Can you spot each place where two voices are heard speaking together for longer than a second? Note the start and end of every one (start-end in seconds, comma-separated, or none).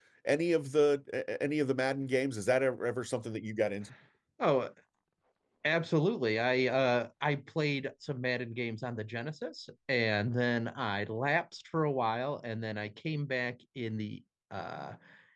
none